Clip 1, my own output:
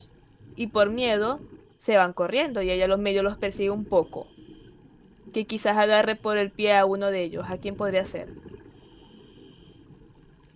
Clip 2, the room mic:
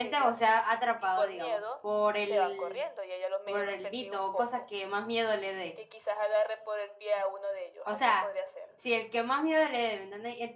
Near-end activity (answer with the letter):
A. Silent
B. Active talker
B